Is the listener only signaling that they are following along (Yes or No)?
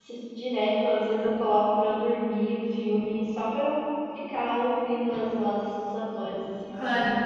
No